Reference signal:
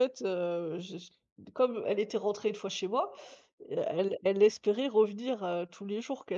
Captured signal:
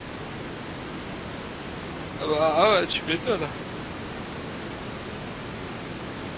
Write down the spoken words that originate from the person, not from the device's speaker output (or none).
ah bah, ah ouais, tu m'étonnes.